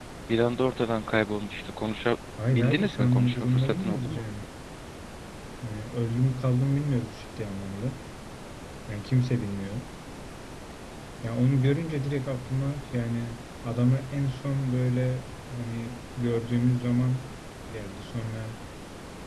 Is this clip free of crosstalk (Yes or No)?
No